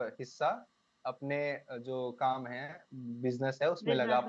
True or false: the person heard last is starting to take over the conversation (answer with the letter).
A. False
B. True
A